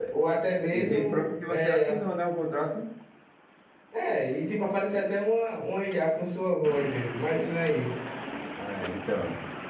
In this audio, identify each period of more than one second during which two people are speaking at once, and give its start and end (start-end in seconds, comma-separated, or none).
0.7-1.9